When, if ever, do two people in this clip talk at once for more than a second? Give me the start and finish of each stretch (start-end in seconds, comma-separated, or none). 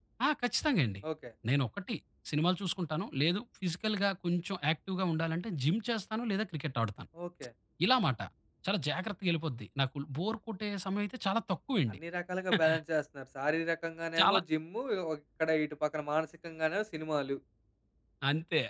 none